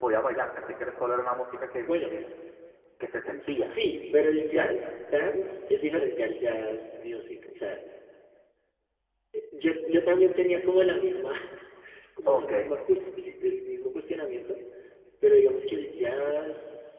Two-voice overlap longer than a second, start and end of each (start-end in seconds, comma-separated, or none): 3.5-4.7